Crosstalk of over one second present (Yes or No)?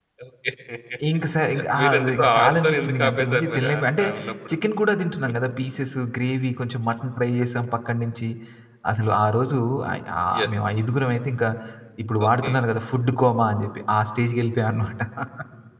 Yes